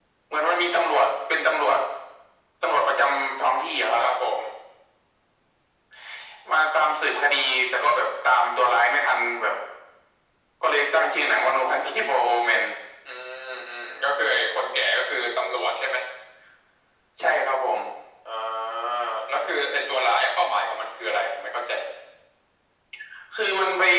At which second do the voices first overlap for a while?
none

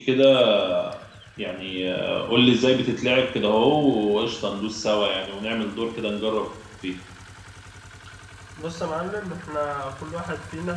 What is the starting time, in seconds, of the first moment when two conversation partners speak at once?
none

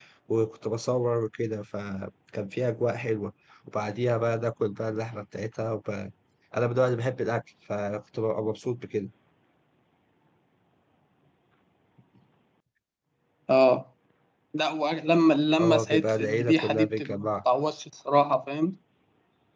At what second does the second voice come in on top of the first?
15.6 s

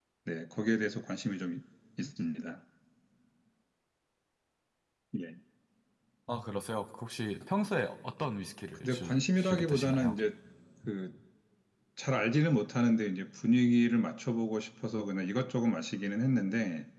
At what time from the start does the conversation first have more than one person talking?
8.8 s

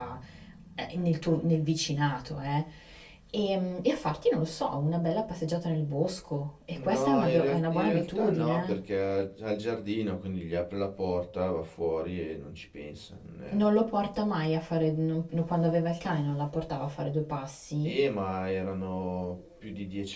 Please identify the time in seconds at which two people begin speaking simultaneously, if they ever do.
6.7 s

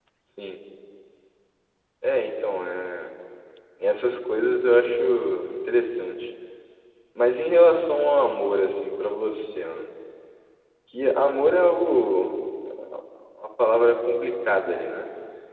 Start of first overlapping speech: none

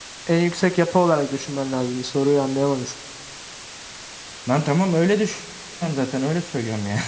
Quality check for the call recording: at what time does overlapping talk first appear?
none

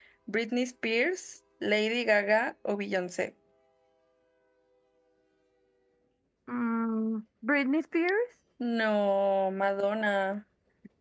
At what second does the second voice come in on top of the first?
none

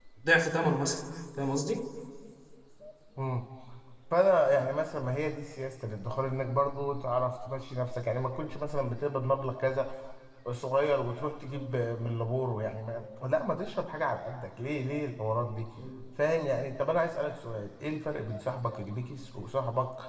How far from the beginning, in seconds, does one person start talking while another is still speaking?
none

